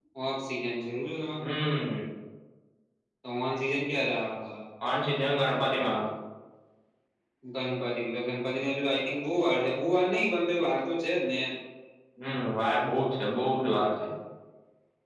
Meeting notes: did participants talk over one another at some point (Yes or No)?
No